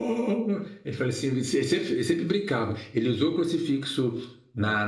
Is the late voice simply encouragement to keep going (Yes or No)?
Yes